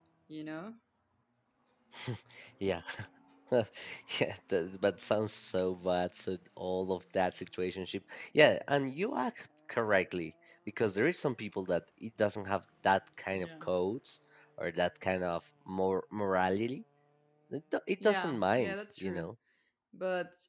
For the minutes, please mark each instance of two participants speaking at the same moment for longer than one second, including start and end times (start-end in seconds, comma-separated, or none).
18.0-19.3